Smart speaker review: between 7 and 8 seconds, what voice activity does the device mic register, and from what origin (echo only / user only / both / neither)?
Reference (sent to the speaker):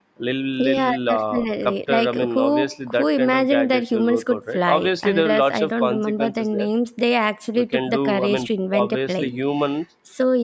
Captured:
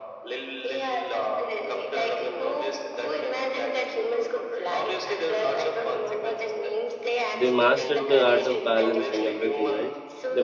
both